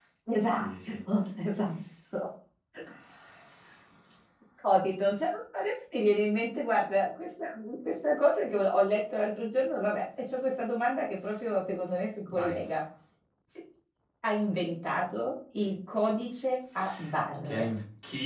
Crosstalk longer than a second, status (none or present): none